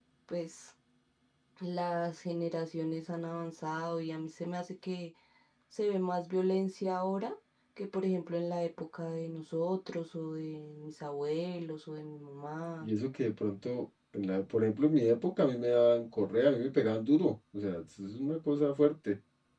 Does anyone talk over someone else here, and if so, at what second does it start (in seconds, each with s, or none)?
none